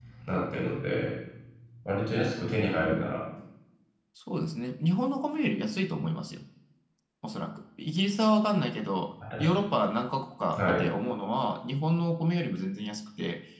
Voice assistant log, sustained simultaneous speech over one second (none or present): none